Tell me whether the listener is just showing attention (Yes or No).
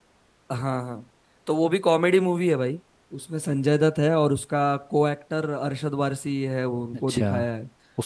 No